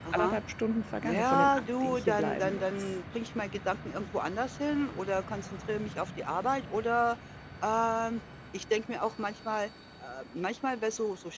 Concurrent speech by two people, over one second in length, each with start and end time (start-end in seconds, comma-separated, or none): 1.0-2.9